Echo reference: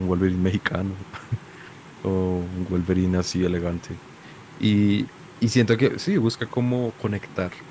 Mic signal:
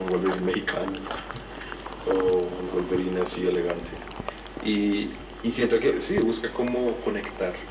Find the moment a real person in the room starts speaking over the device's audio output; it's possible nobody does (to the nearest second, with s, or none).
none